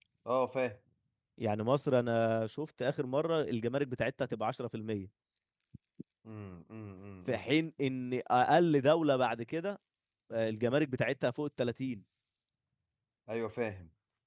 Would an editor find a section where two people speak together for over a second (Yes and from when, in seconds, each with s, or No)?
No